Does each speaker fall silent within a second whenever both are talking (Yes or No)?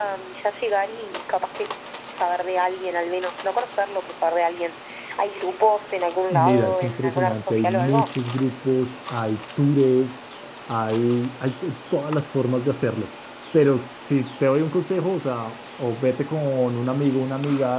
No